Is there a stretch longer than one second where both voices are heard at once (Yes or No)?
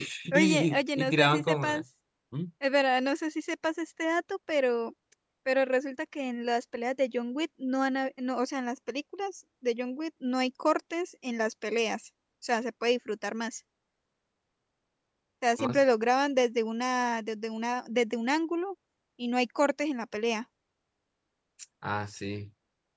Yes